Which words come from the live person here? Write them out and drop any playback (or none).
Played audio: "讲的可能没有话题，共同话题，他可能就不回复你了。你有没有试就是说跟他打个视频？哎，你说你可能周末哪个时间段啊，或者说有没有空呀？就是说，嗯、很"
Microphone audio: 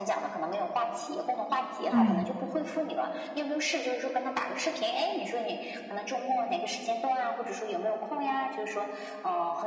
对，